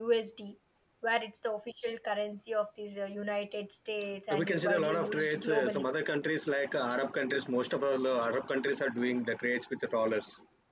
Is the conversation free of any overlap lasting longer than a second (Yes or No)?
No